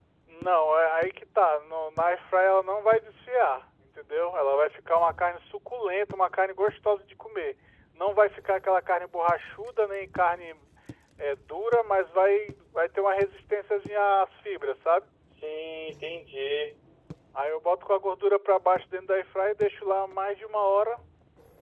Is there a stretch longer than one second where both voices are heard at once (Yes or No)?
No